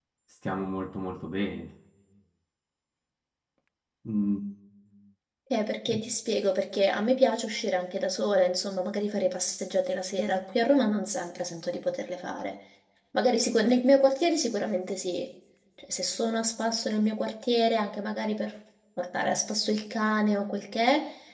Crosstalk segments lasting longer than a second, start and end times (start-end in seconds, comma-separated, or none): none